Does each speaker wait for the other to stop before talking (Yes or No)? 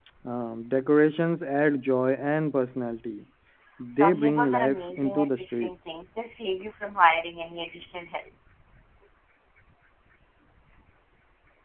No